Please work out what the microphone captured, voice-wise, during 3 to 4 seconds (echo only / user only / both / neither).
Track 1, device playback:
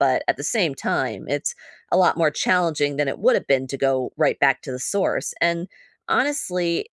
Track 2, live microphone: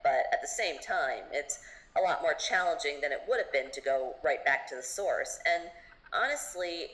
echo only